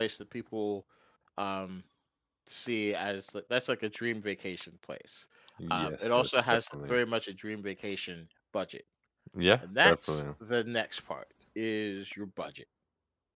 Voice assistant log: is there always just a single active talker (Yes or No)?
No